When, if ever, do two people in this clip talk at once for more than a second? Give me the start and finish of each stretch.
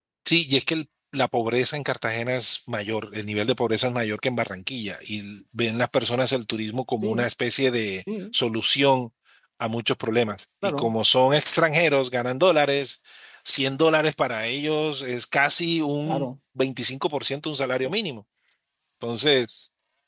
none

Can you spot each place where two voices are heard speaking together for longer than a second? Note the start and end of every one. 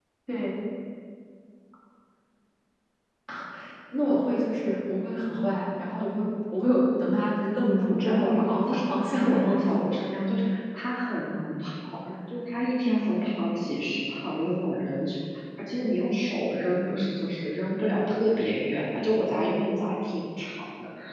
7.8-9.6

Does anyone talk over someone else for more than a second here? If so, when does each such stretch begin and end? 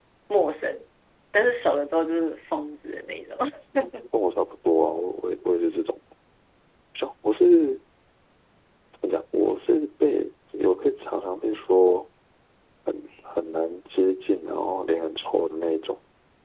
none

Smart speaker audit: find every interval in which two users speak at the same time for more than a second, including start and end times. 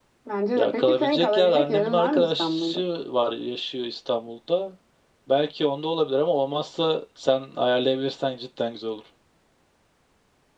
0.6-2.8

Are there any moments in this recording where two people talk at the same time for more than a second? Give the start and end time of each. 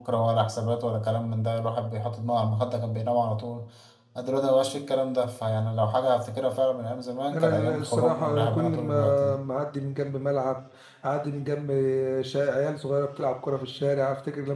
7.3-9.4

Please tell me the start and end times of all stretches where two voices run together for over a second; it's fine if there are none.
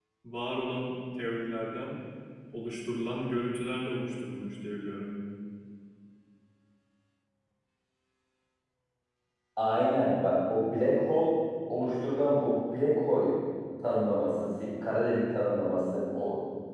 none

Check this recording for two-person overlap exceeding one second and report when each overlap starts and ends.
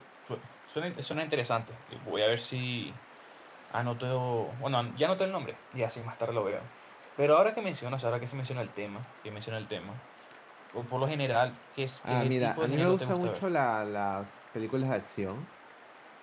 12.1-13.4

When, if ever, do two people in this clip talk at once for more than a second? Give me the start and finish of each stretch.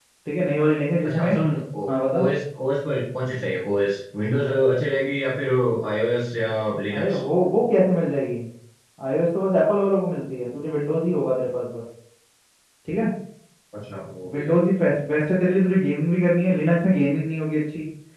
none

